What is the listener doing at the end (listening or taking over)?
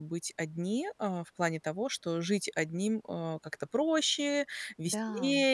listening